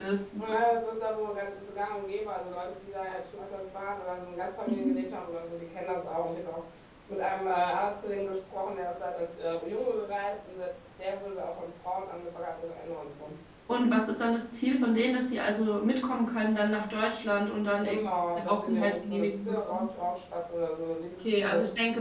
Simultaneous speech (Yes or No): Yes